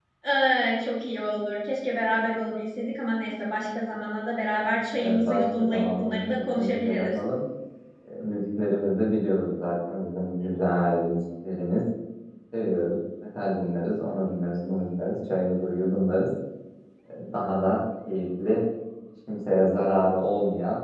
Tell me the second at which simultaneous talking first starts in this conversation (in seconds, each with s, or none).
5.0 s